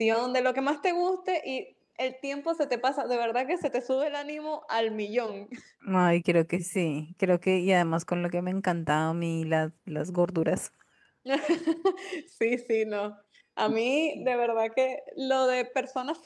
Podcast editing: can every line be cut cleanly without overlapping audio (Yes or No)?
Yes